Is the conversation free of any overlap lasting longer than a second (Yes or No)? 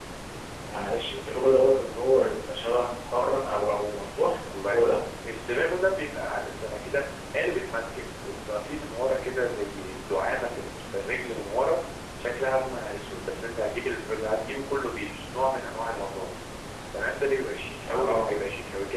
Yes